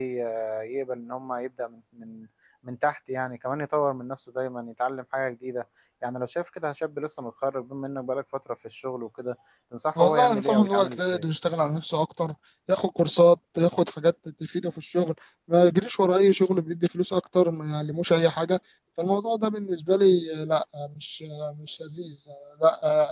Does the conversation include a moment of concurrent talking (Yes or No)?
Yes